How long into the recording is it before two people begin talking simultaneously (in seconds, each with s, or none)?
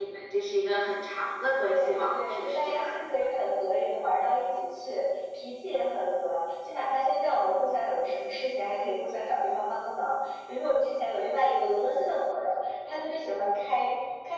1.7 s